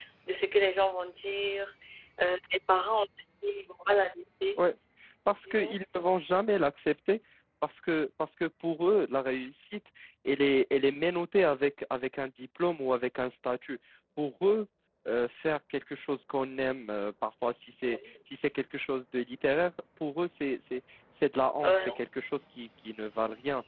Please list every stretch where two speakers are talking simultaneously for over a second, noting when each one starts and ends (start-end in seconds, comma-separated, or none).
none